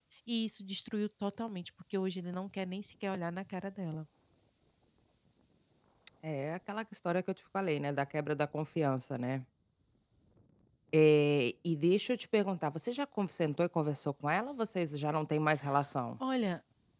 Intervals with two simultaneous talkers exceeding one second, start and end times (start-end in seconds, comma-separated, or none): none